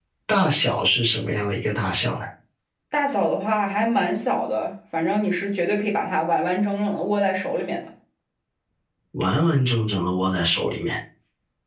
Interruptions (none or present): none